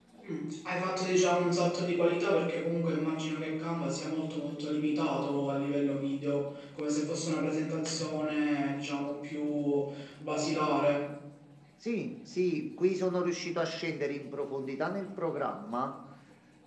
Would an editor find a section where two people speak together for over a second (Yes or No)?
No